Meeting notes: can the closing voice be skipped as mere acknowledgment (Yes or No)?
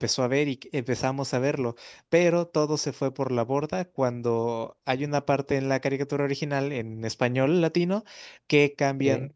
Yes